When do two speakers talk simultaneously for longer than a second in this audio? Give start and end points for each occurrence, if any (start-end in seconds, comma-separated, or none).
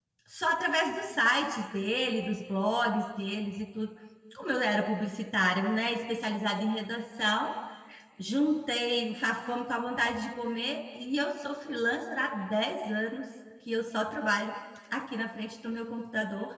none